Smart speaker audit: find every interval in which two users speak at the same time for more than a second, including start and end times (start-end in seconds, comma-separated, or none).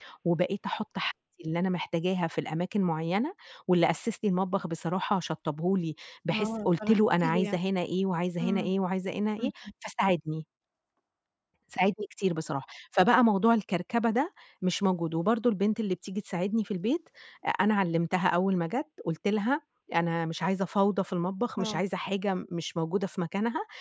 6.3-7.6